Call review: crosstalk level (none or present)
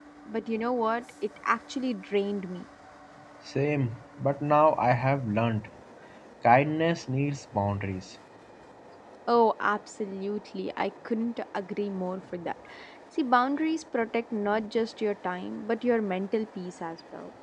none